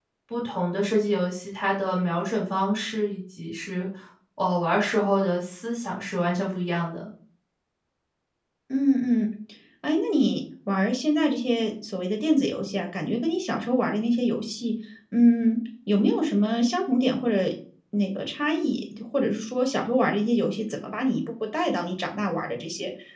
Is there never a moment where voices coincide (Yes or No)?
Yes